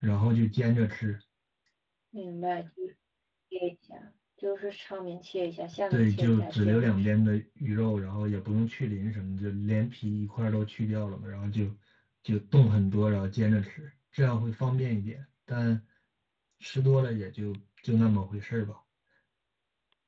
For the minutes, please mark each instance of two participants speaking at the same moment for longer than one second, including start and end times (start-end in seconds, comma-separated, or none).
5.9-7.2